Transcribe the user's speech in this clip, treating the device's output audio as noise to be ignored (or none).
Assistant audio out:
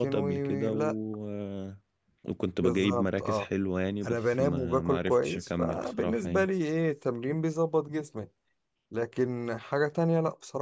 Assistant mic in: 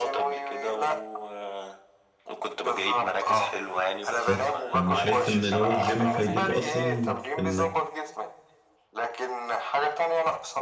بس فانا شايف ان اللي هو الجيم فايدته اصلا في انك